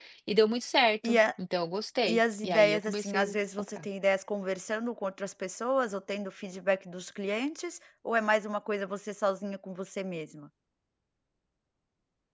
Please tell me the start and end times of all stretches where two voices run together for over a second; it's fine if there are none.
2.1-3.9

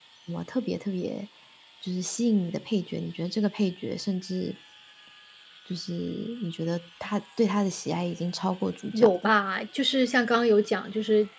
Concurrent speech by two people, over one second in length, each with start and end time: none

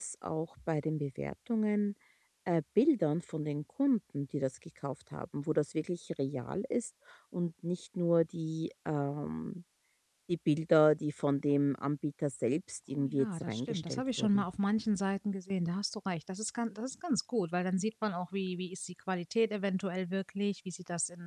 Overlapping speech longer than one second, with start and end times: 12.9-14.4

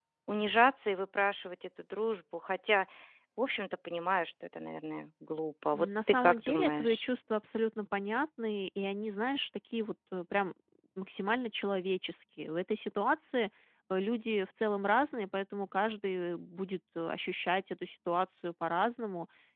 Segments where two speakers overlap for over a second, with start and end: 5.7-7.1

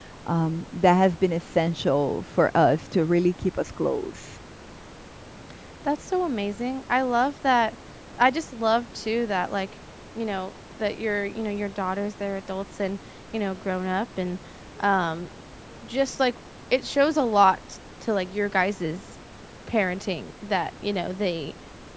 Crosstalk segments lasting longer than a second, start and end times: none

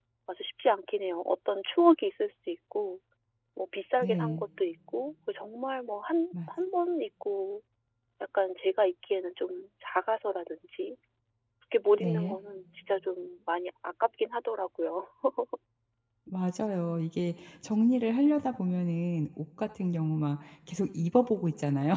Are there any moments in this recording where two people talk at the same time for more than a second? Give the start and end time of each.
none

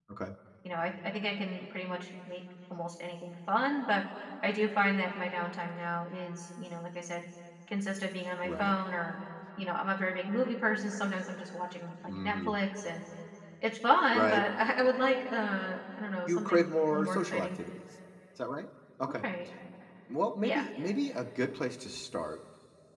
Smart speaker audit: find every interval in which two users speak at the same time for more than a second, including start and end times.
16.3-17.5

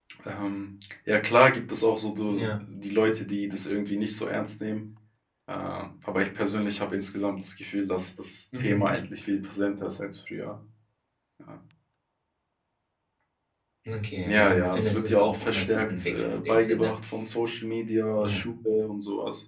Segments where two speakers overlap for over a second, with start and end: 14.2-16.9

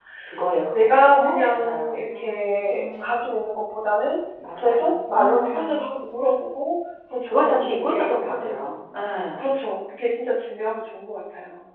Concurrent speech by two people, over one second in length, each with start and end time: 0.7-3.1, 4.5-6.0, 7.3-8.8

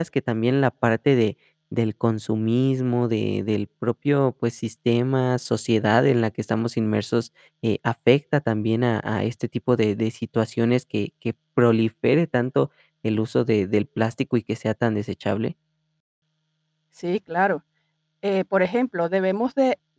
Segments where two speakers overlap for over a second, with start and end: none

